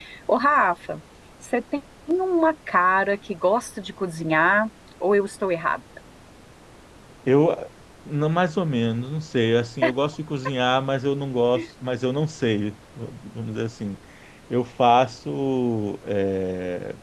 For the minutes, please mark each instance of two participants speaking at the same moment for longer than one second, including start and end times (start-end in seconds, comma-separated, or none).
none